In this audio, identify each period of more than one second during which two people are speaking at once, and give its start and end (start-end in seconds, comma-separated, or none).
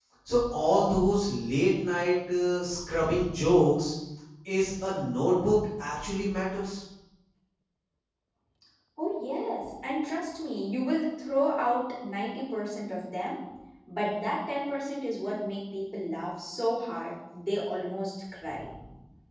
none